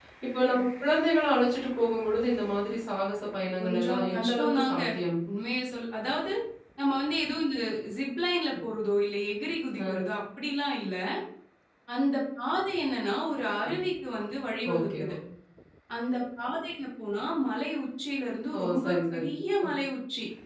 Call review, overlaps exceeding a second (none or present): present